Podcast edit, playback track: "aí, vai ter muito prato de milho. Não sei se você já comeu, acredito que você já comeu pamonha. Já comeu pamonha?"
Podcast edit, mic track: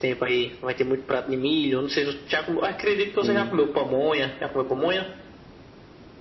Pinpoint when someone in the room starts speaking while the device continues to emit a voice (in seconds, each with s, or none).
3.2 s